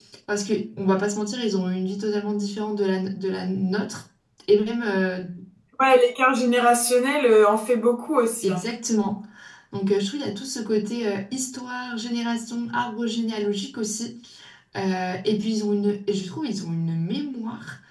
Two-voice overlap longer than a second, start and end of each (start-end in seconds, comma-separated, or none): none